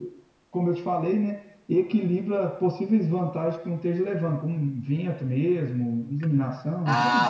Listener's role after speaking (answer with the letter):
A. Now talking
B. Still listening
A